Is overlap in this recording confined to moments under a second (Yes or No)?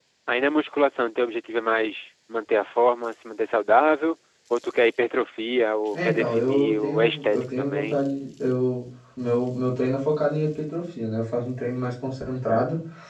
No